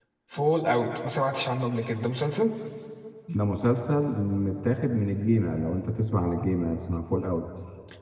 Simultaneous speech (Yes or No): No